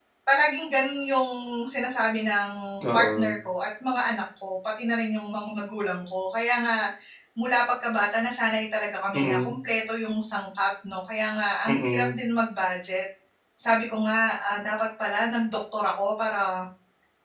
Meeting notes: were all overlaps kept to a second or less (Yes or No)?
Yes